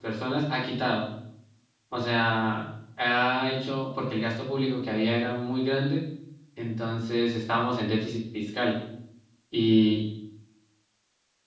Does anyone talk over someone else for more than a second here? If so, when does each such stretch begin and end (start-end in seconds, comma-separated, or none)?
none